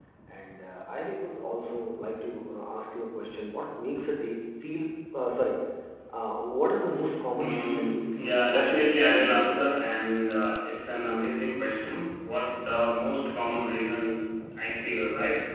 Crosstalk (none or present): present